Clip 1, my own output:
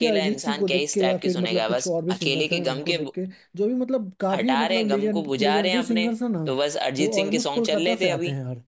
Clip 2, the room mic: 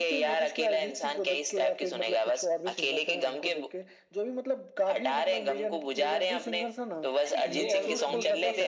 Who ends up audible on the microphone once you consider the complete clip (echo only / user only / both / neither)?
both